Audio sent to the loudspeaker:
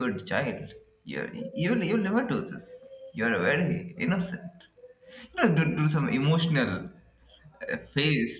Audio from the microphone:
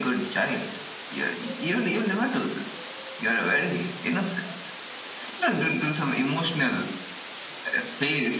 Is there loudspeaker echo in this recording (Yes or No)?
Yes